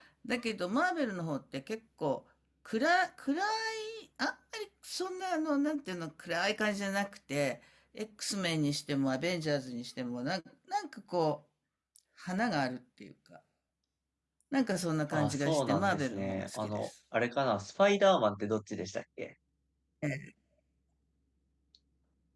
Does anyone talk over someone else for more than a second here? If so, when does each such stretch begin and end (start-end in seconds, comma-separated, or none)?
15.1-16.9